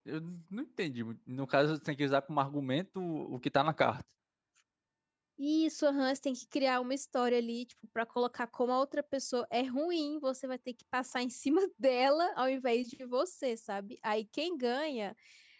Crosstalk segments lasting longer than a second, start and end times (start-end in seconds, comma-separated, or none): none